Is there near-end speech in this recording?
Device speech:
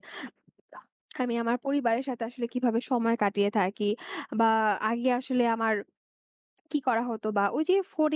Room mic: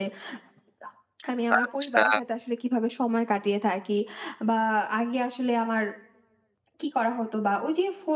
Yes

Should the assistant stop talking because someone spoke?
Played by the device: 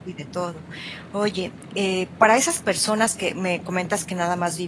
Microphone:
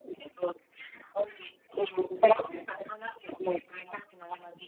No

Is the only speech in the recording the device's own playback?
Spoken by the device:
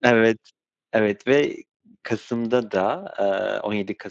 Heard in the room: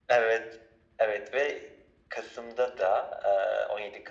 Yes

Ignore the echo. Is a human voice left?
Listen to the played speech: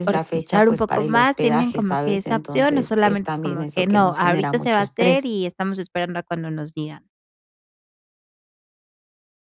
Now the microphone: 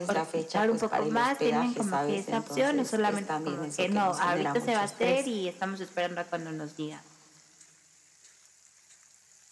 No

